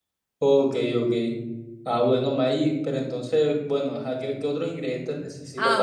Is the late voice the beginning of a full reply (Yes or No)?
Yes